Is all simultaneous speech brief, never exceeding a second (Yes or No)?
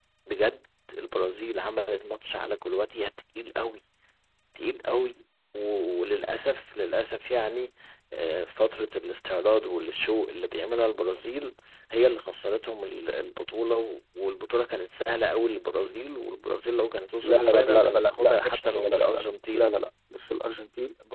No